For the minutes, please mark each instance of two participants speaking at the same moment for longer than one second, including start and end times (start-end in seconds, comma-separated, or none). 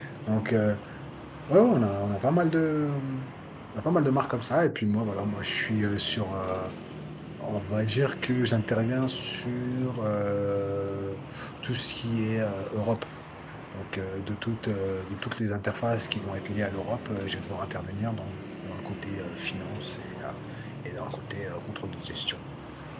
none